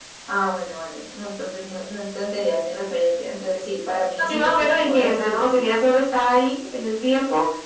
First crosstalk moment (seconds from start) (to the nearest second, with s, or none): 4 s